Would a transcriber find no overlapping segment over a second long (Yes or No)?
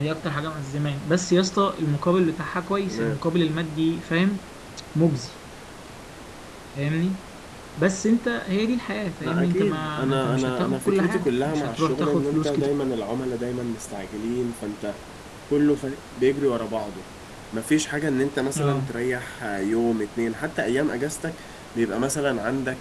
No